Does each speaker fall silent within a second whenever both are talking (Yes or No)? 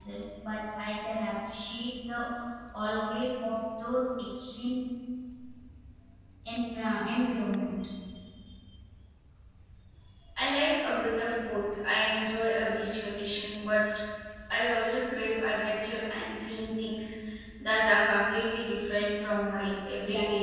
Yes